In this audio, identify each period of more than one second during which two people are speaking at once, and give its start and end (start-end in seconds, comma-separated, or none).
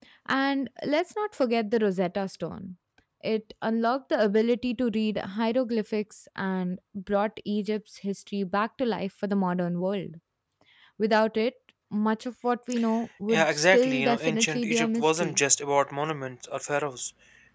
13.3-15.4